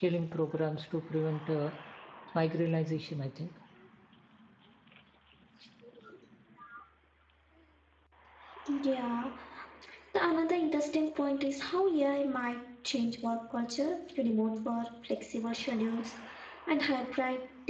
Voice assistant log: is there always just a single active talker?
Yes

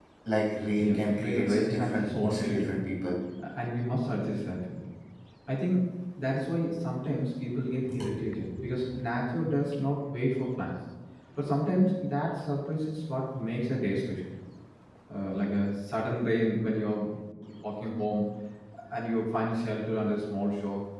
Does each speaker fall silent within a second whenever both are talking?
No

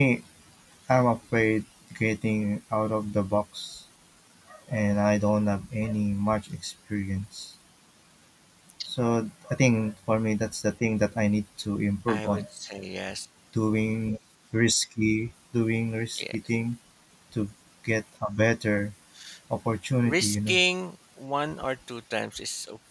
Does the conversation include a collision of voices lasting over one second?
No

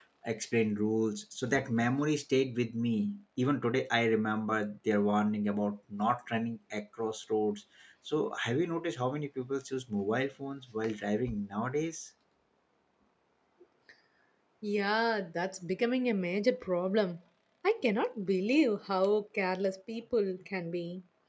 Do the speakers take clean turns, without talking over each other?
Yes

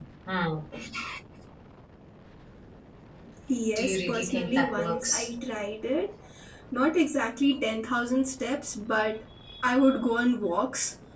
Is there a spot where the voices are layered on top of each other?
Yes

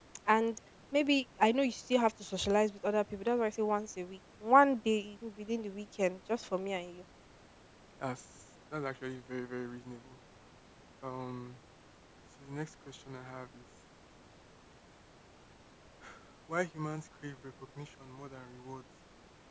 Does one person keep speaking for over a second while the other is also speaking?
No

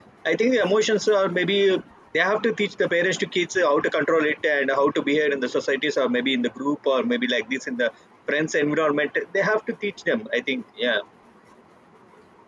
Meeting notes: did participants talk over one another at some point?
No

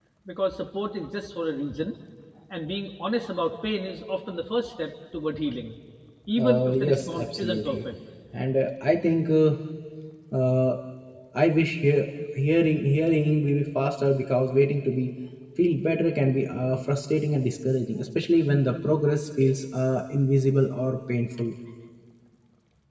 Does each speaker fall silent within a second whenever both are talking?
No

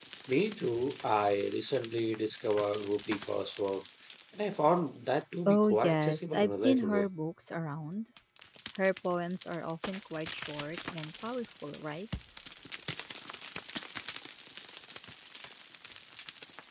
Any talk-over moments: Yes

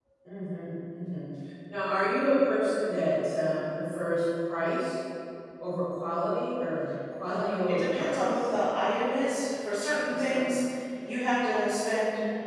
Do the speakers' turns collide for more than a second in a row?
Yes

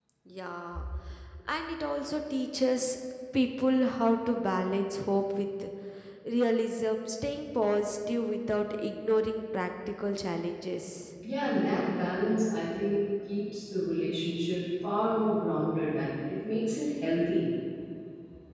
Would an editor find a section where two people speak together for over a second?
No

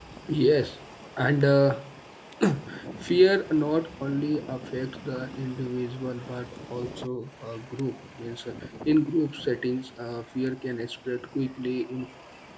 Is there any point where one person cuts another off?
No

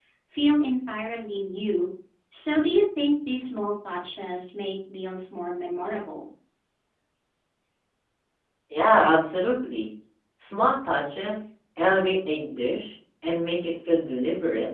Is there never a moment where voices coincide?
Yes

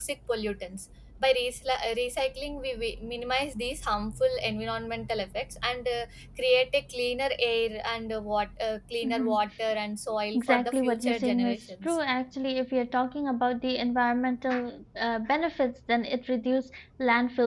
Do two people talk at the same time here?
Yes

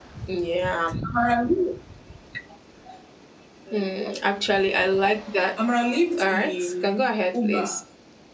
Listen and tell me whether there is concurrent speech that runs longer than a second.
Yes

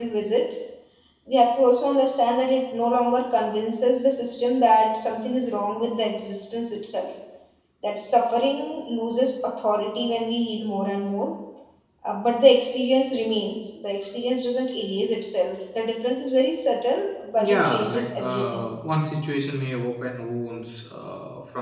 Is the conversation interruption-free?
No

